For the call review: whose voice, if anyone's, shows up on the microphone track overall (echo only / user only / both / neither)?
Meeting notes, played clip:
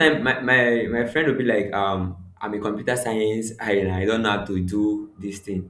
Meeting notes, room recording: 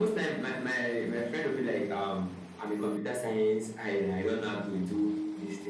echo only